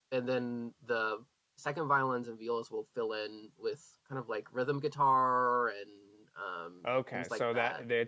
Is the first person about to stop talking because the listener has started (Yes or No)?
Yes